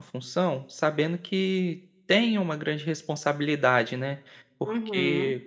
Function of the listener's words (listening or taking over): taking over